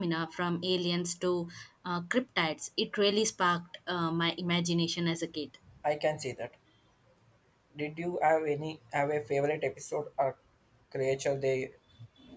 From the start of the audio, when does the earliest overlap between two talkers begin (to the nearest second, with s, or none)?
none